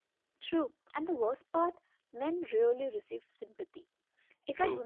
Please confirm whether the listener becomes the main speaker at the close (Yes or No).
No